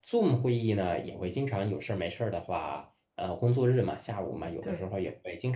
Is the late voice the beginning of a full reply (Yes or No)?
No